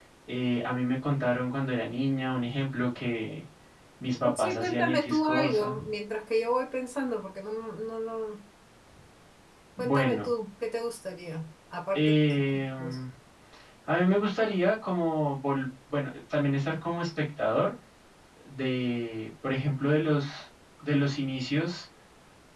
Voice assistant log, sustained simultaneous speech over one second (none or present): present